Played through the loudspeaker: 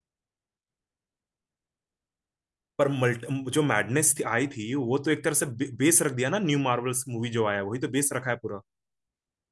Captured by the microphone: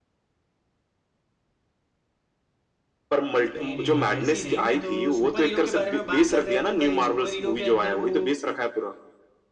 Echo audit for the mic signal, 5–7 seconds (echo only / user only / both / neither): both